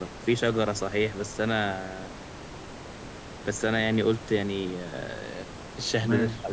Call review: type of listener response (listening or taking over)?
listening